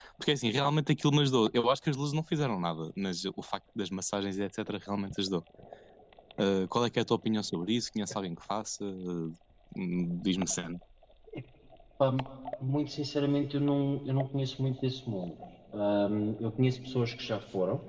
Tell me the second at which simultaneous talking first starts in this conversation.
none

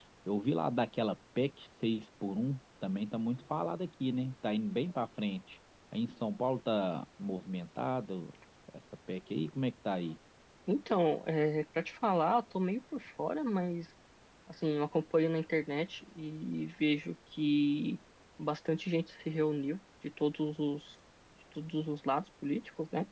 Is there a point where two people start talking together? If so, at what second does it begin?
none

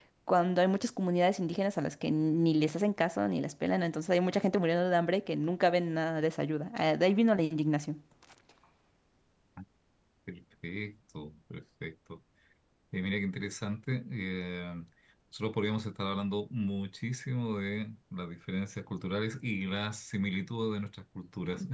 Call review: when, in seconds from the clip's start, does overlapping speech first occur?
none

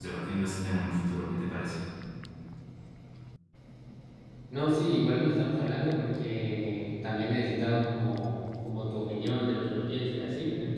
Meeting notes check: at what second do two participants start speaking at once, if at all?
none

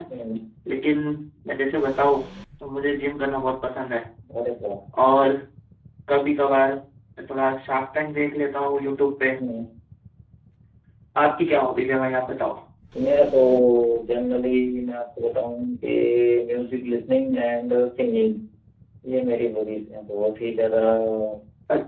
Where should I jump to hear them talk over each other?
none

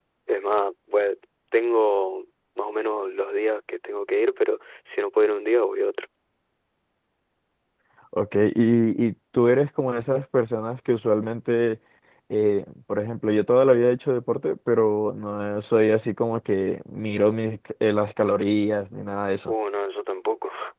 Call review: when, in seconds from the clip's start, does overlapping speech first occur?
none

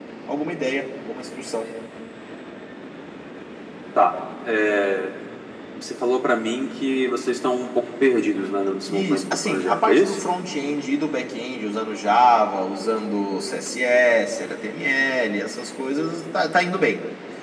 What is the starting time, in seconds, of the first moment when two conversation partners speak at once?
9 s

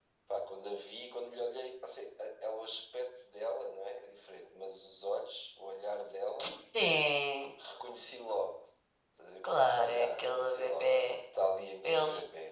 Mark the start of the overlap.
10 s

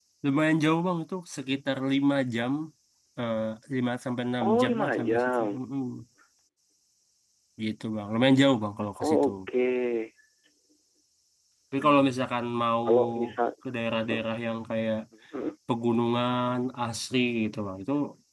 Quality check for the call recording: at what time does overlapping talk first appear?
4 s

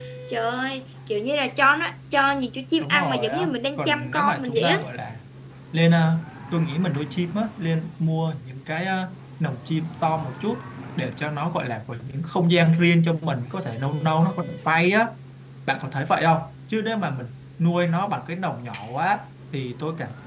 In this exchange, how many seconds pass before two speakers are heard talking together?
3 s

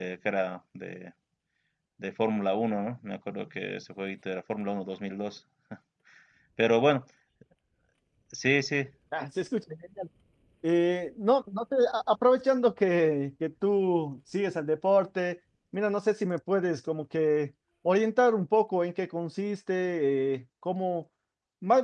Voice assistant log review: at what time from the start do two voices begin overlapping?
none

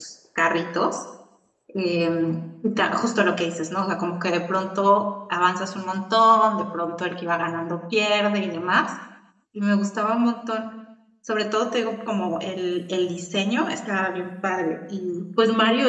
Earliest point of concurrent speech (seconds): none

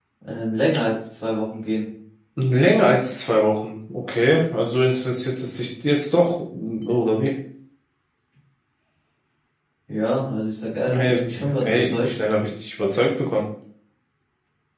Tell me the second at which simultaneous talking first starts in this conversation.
11 s

